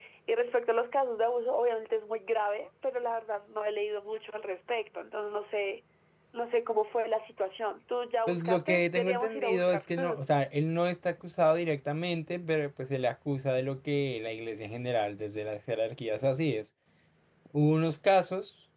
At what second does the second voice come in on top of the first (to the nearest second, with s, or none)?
8 s